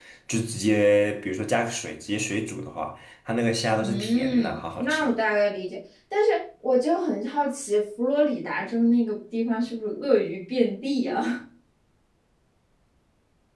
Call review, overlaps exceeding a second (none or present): present